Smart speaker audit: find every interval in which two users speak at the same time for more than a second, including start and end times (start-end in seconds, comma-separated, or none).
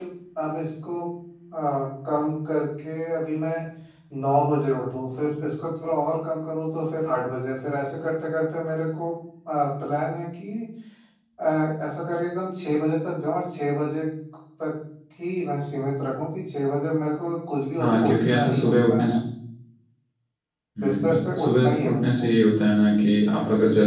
17.8-19.1, 20.8-22.3